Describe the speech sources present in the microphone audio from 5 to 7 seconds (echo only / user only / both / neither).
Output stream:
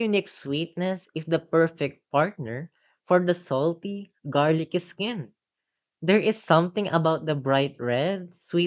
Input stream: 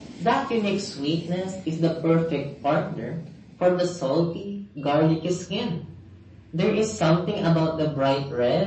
echo only